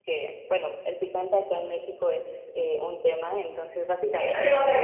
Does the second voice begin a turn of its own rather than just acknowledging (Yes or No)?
Yes